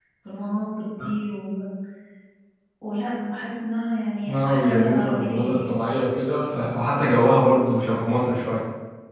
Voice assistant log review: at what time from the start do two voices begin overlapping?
4.3 s

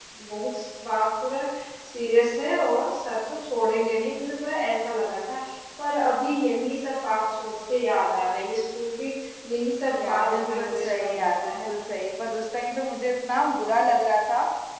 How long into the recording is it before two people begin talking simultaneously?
9.9 s

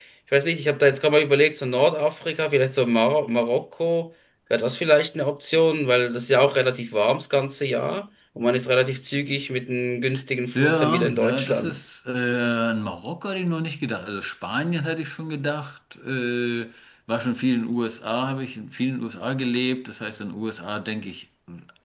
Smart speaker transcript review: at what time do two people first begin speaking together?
10.6 s

